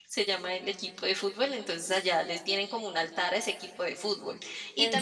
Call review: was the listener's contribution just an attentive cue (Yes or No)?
Yes